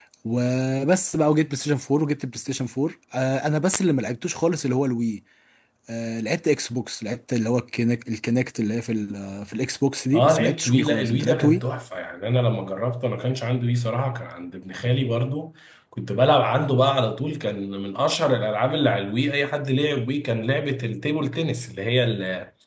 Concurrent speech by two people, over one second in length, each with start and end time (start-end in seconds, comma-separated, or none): 10.1-11.6